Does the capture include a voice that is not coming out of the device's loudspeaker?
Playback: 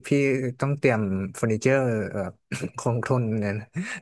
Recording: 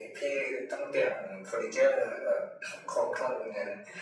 No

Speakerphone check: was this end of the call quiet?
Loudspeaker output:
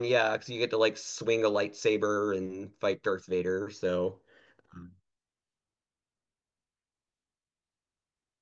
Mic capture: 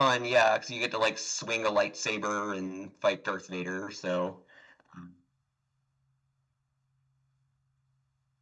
Yes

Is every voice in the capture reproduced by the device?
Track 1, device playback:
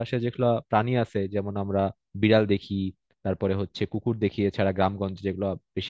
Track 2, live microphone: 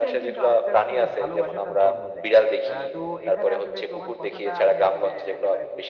No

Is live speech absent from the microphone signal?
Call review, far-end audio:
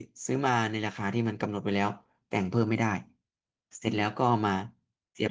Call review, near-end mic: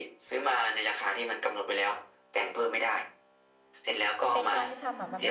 No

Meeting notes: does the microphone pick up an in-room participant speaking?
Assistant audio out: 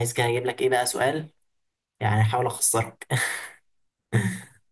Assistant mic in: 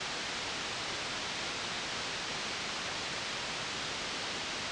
No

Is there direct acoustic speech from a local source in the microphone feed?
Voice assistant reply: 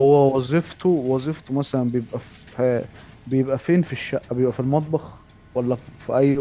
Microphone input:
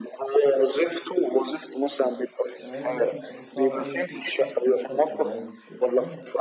Yes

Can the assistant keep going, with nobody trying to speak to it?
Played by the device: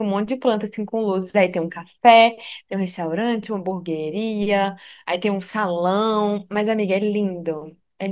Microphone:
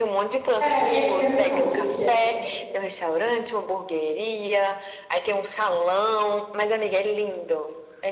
No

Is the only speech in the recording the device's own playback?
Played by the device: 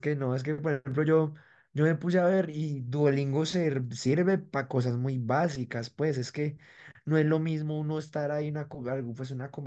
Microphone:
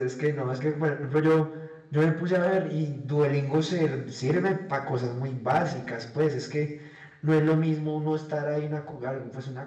Yes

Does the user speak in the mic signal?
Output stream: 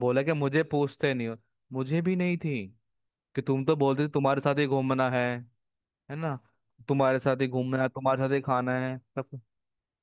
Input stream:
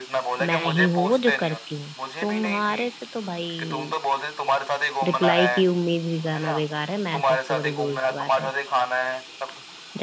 Yes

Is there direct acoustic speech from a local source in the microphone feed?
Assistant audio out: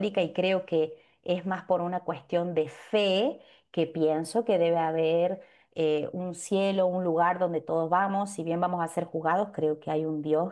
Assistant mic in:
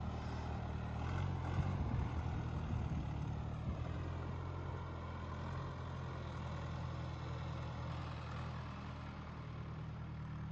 No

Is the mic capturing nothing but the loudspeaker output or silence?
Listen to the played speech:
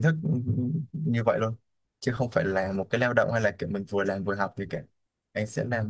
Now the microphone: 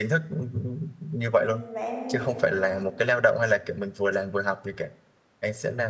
No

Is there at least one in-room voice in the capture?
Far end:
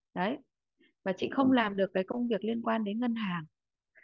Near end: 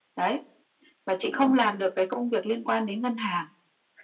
No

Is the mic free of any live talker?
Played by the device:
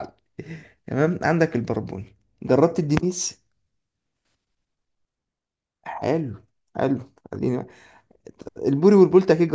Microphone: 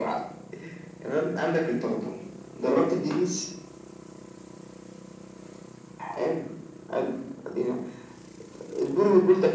Yes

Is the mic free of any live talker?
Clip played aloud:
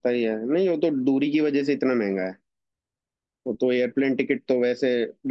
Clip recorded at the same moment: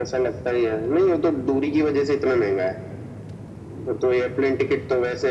Yes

